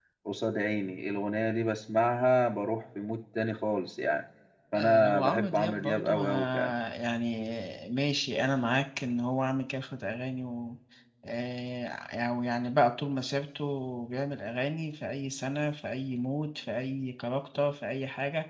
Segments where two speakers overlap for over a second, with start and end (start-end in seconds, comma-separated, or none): 4.7-6.7